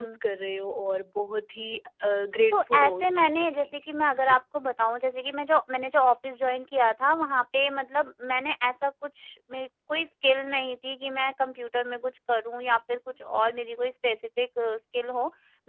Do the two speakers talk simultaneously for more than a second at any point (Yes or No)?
Yes